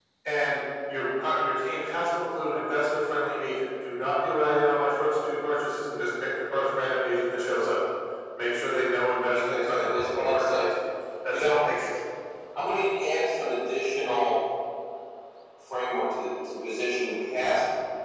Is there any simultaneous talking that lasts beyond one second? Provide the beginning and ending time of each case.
9.3-10.6

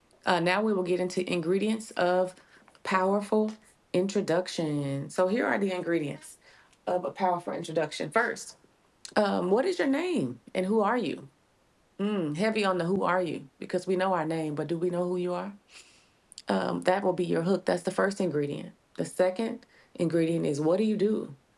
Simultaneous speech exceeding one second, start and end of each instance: none

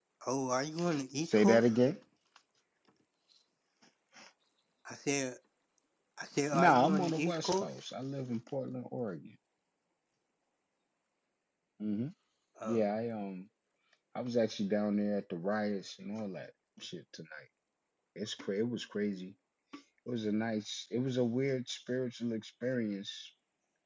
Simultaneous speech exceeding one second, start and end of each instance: 6.5-7.7

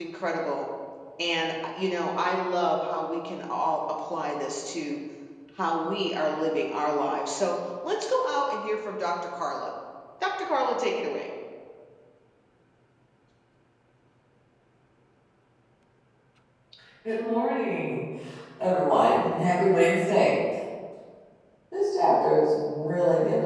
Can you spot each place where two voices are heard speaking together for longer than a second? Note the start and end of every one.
none

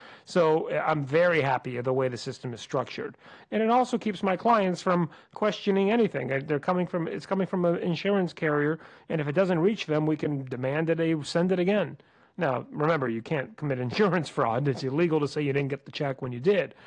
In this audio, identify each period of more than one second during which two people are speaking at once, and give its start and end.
none

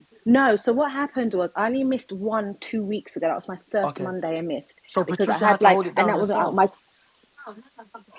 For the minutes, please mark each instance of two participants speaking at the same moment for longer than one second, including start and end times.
5.1-6.5

